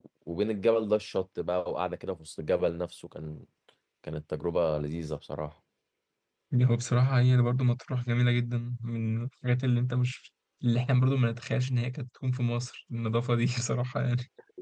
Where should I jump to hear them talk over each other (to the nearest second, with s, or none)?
none